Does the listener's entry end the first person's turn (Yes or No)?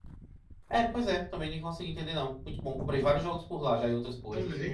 Yes